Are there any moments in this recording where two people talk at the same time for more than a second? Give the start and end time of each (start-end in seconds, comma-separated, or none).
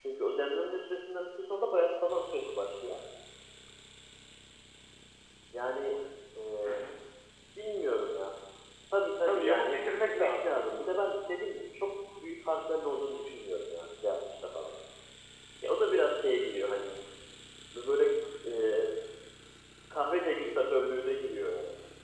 9.2-10.6